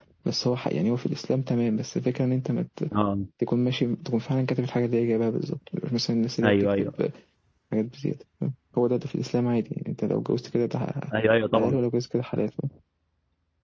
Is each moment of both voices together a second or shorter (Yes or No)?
Yes